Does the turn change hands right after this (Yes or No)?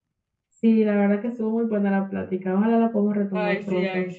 Yes